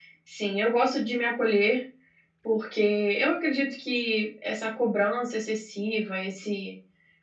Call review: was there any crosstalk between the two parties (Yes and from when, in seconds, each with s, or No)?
No